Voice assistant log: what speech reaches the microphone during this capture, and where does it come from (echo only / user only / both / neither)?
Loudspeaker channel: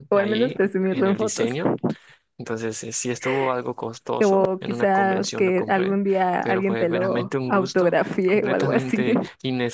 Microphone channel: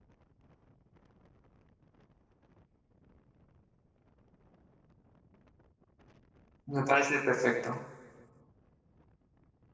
user only